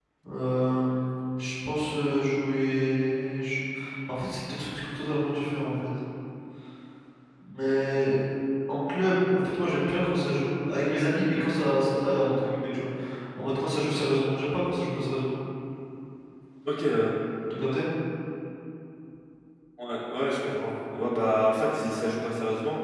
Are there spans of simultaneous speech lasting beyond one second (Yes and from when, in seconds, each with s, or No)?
No